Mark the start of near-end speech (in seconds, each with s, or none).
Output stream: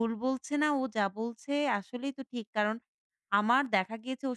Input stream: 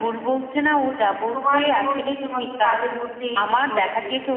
1.3 s